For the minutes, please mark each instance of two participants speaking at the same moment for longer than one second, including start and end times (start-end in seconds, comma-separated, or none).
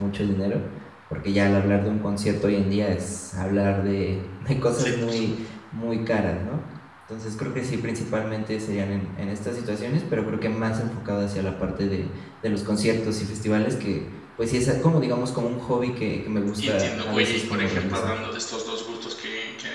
16.6-18.1